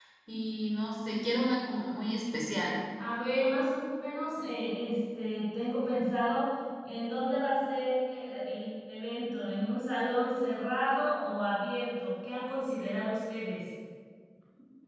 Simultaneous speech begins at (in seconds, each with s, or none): none